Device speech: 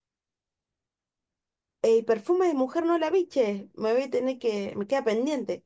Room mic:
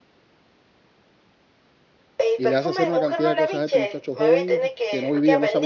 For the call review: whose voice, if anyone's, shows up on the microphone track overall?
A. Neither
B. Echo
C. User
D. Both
D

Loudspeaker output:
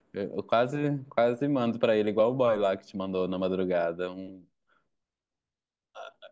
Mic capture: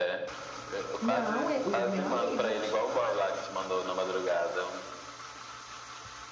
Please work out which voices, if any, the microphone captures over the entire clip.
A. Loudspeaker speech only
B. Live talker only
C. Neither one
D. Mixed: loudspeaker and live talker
D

